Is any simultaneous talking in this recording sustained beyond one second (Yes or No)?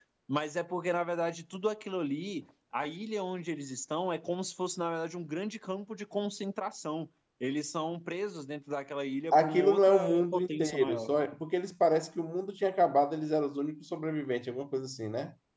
Yes